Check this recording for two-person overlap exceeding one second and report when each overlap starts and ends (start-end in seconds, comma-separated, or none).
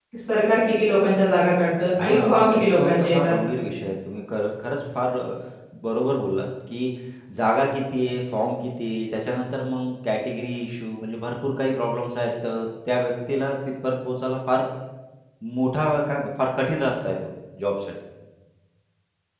2.0-3.3